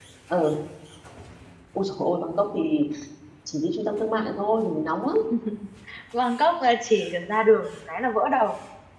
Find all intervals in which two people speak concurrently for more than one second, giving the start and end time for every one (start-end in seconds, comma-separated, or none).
none